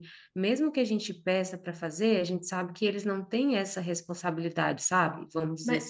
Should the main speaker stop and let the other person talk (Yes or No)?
Yes